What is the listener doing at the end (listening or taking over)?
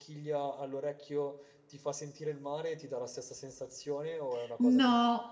taking over